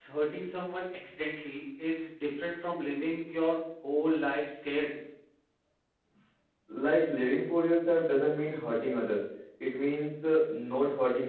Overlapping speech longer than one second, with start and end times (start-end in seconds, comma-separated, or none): none